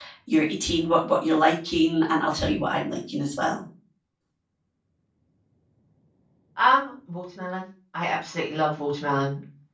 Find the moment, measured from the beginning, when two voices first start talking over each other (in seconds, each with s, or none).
none